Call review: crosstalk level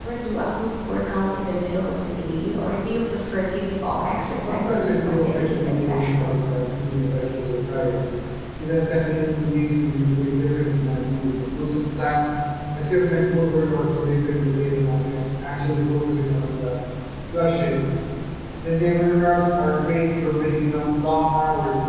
present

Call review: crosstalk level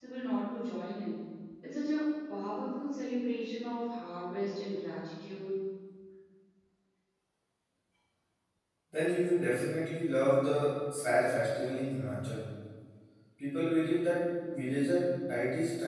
none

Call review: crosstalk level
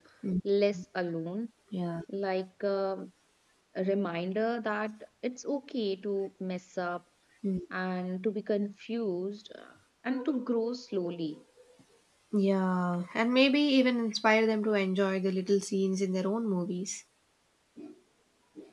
none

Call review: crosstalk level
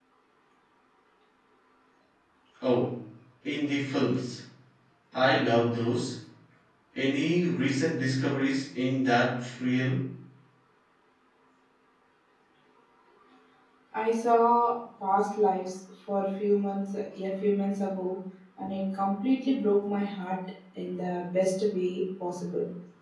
none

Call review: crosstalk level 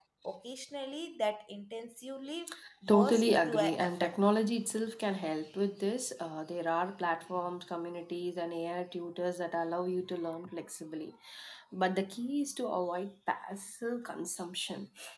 present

